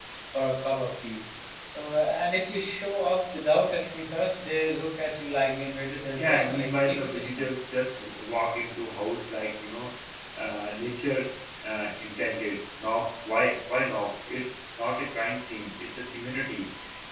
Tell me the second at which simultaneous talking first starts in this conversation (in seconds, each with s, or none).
6.2 s